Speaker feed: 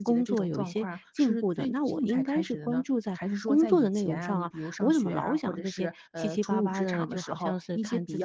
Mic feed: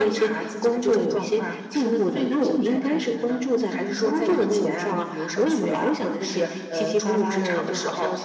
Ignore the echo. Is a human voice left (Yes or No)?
No